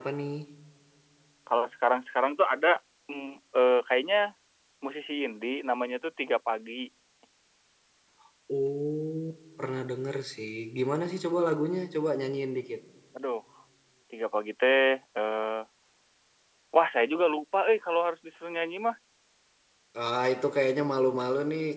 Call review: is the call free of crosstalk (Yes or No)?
Yes